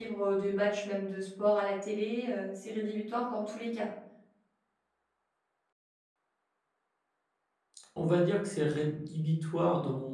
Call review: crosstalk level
none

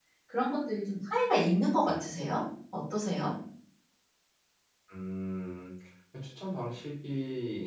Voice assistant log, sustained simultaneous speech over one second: none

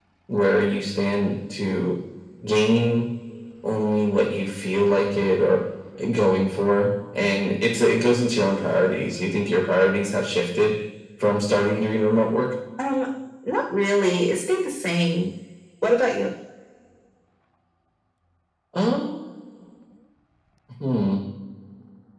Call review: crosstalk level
none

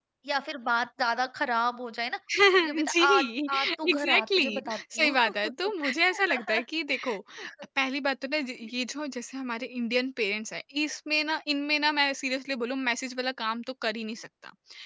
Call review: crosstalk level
present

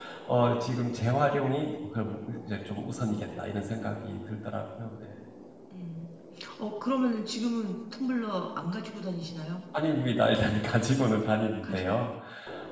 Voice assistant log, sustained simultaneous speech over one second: none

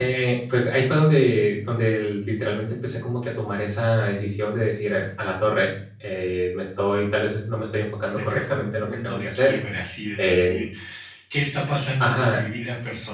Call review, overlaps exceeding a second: present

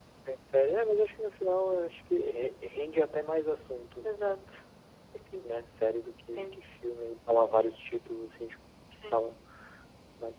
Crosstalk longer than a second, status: none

